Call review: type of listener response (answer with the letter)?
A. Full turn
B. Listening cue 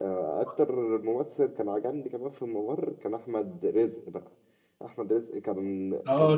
A